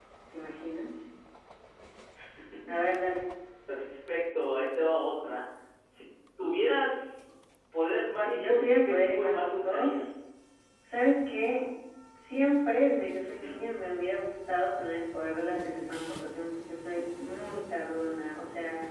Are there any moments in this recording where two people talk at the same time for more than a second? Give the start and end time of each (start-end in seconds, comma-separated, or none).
8.1-10.2